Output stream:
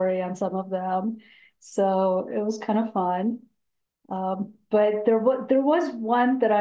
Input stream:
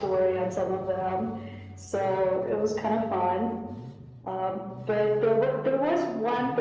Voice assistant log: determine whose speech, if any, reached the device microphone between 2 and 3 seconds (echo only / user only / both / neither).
echo only